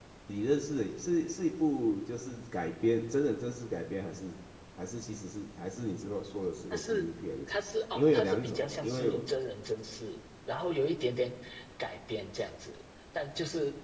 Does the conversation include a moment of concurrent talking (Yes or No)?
Yes